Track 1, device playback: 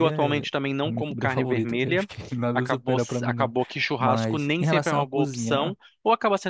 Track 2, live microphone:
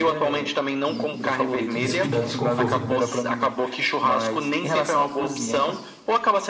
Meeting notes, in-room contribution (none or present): present